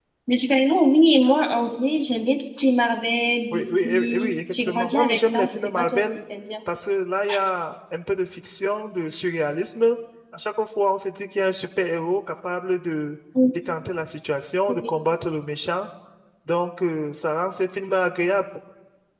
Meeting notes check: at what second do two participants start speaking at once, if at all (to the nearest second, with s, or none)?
4 s